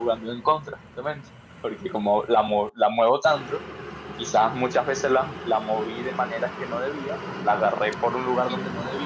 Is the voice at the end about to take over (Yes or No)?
No